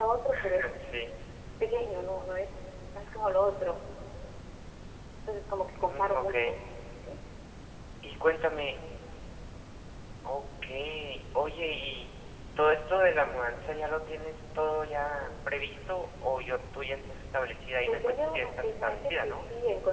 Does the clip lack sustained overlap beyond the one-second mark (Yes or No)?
No